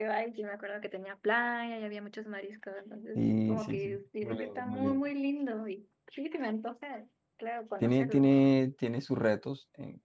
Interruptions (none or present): present